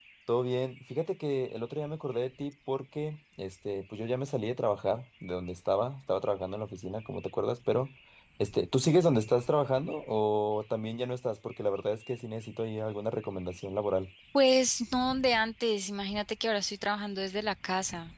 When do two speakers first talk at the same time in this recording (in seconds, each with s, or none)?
none